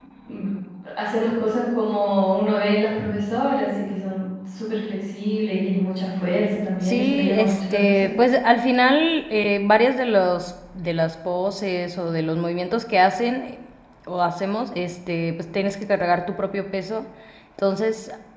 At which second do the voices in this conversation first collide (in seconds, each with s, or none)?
6.8 s